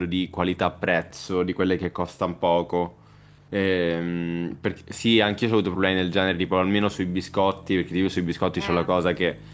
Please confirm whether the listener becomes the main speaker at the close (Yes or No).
No